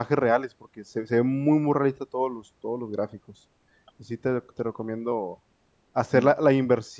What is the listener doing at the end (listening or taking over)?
listening